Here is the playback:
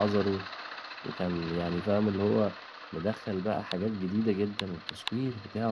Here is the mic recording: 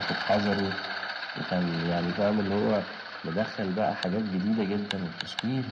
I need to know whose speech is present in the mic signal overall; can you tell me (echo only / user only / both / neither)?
echo only